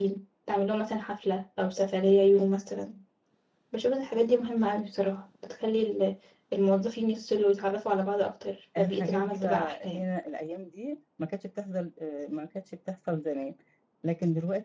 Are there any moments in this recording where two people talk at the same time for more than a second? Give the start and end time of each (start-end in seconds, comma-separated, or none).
8.8-10.0